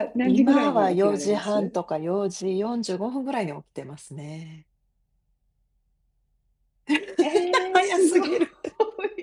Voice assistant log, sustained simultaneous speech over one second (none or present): present